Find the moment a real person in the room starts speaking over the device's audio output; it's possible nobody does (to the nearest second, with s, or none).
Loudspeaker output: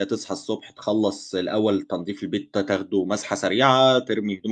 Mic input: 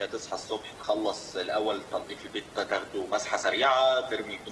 none